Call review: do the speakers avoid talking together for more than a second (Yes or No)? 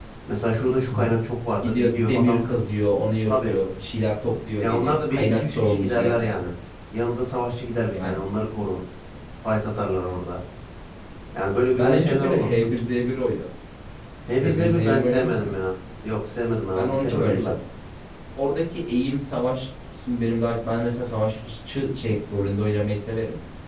No